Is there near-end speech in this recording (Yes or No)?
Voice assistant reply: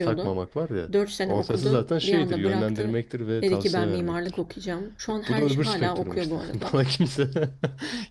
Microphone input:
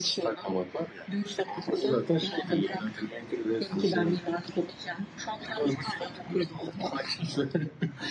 No